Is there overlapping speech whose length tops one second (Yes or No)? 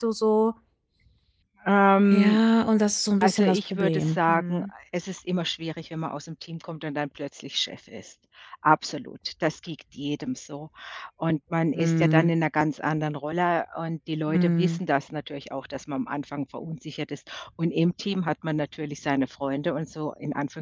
Yes